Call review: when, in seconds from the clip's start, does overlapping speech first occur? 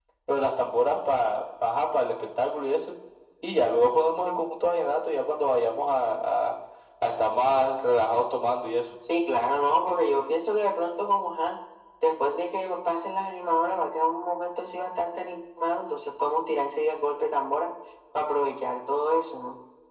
none

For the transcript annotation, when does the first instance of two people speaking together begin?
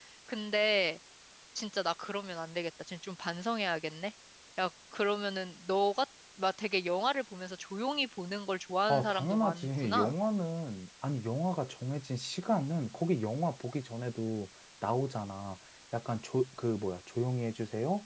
8.9 s

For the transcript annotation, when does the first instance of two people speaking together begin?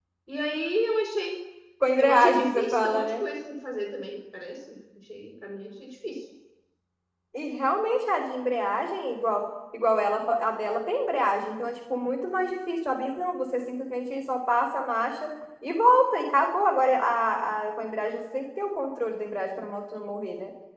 2.0 s

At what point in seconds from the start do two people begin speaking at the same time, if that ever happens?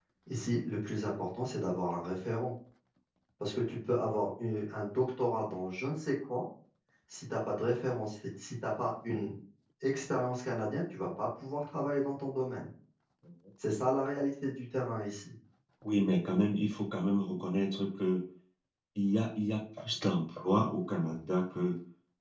none

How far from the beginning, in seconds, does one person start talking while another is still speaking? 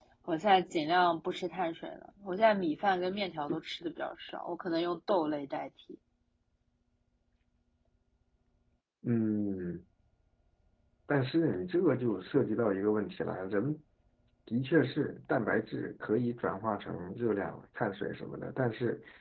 none

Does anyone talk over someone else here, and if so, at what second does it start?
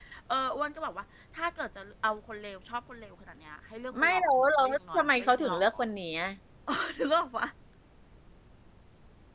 3.9 s

